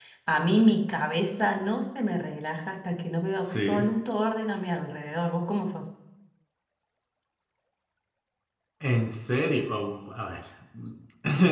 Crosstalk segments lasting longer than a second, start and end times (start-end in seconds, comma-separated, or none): none